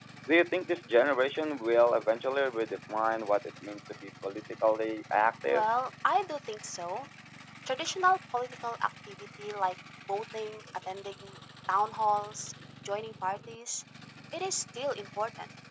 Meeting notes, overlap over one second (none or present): none